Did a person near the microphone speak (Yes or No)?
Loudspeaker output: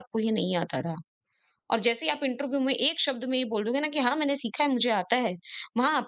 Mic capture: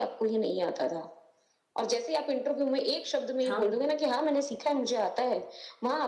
Yes